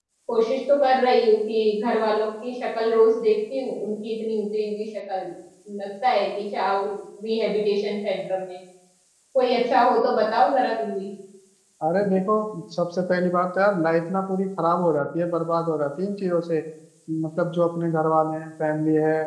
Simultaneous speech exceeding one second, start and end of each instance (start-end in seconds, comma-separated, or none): none